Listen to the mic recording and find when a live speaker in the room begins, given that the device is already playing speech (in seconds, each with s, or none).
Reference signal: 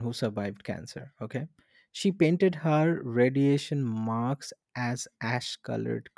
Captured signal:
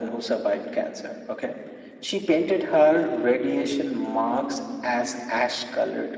none